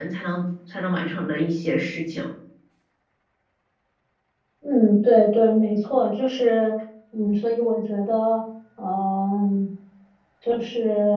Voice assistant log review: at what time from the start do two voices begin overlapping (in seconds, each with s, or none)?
none